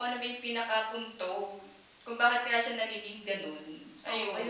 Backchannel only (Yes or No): No